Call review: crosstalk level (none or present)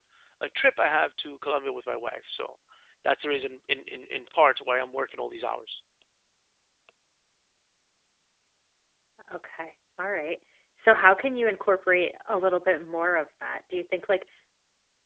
none